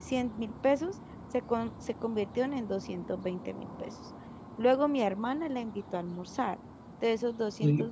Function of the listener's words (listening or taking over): listening